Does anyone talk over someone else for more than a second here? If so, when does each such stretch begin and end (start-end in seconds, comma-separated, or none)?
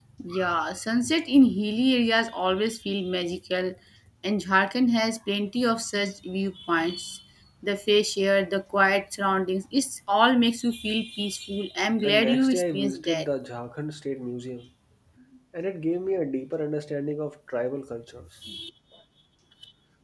12.0-13.3